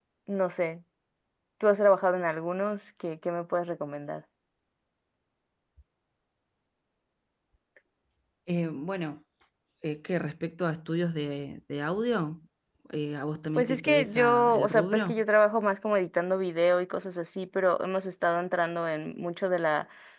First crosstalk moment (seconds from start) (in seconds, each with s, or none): 13.6 s